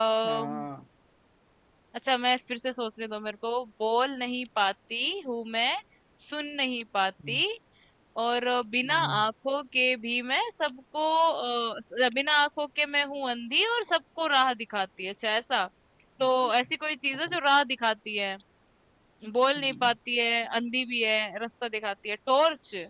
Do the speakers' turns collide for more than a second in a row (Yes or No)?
No